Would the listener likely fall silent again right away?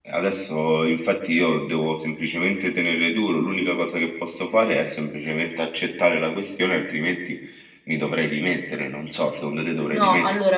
No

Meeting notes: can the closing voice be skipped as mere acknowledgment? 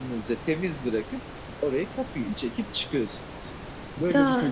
No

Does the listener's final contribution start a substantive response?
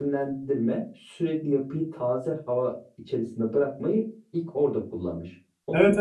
Yes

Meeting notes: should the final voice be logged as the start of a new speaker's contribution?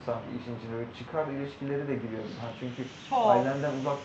No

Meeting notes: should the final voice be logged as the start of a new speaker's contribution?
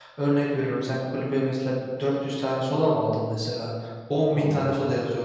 No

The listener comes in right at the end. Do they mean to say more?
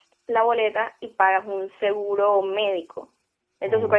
No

